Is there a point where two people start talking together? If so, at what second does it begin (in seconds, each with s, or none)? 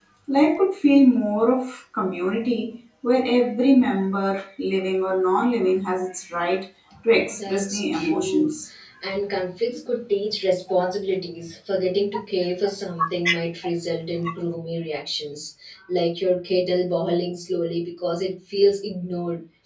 7.3 s